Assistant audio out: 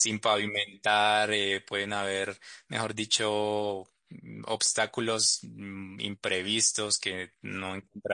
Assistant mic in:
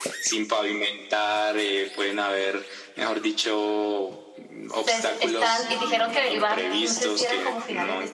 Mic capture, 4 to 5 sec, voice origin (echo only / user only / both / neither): both